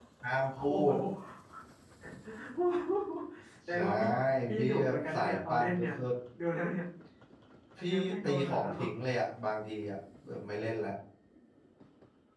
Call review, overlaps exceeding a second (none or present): present